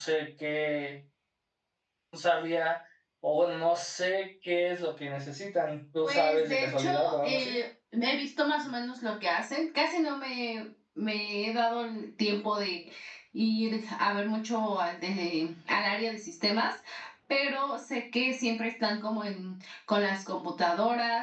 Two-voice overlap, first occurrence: 6.0 s

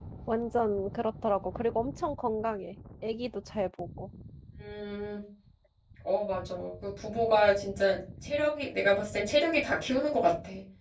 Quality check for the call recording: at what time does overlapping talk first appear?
none

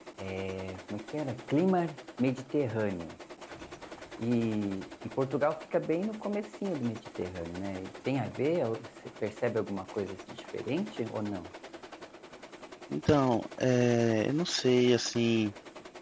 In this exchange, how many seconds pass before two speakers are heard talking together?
none

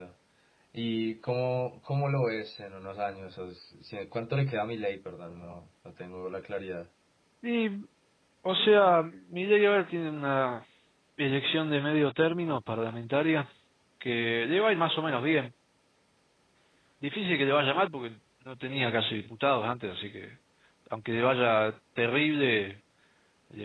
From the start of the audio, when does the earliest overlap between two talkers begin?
none

